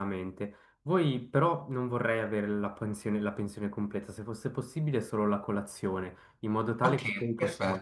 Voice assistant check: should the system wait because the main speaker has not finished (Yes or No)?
No